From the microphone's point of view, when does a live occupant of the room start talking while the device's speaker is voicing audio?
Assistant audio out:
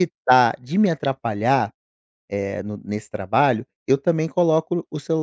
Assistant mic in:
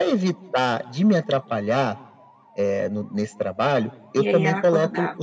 4.1 s

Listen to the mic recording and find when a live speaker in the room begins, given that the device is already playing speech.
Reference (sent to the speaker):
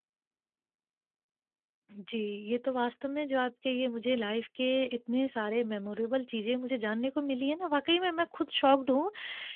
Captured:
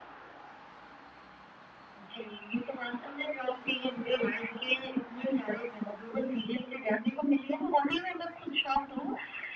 none

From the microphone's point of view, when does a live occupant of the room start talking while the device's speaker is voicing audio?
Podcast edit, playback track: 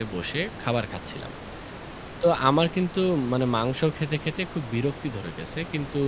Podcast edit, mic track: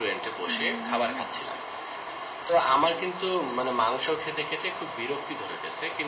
0.5 s

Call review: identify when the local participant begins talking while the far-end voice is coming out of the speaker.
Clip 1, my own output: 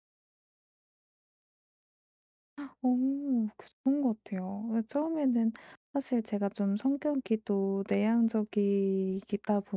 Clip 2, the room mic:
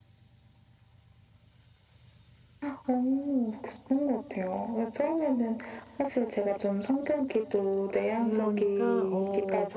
8.0 s

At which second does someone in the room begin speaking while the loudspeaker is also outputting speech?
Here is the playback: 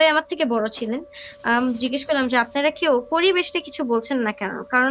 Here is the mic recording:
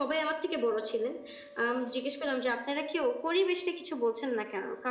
none

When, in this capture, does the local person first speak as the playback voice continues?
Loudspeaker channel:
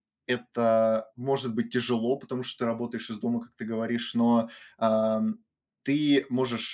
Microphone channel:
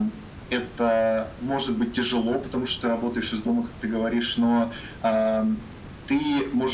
none

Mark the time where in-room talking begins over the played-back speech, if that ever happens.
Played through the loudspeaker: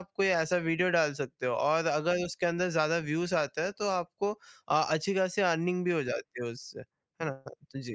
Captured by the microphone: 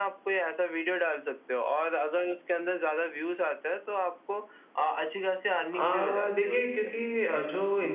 5.7 s

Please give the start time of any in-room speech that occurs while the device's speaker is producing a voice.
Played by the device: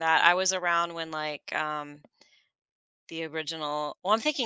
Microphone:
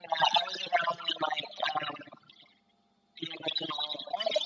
none

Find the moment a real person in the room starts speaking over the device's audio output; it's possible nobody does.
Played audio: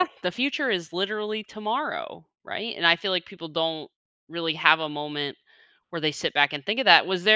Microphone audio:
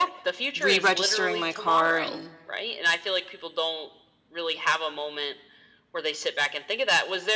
0.6 s

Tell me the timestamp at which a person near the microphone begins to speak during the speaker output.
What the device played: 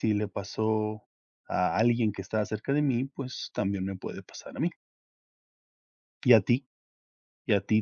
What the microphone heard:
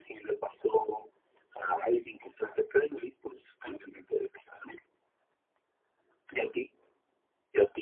none

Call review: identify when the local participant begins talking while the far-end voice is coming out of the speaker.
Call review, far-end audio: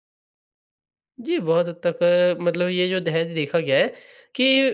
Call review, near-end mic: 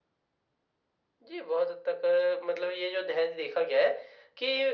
none

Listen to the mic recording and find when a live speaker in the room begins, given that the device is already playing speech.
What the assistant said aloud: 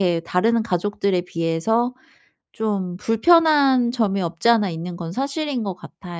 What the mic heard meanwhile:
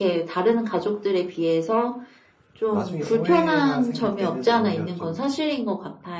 2.7 s

